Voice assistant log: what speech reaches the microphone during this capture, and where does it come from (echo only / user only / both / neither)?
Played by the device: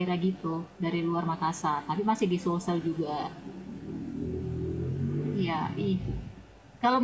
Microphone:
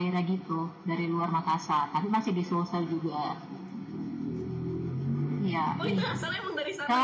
both